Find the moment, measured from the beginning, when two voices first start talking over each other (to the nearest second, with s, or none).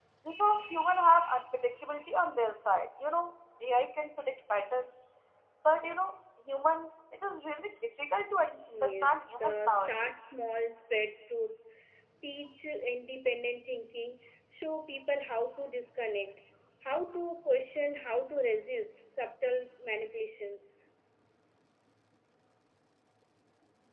9 s